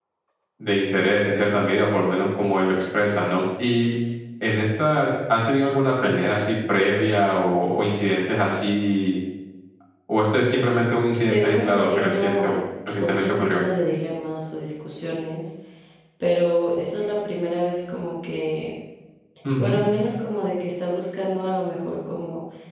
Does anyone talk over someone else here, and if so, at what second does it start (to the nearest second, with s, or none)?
11 s